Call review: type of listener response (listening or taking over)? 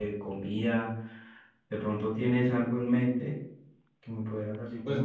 taking over